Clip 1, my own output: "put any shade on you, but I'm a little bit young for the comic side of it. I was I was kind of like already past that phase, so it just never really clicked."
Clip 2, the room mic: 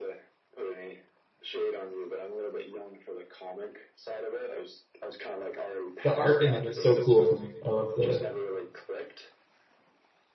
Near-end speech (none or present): present